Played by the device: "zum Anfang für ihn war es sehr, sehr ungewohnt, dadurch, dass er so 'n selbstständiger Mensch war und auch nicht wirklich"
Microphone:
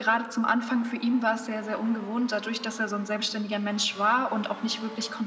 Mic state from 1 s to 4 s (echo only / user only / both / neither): echo only